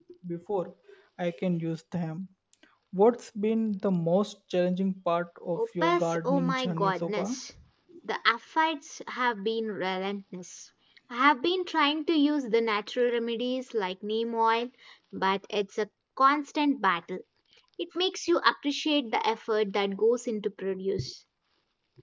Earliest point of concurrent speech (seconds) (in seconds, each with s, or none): 5.5 s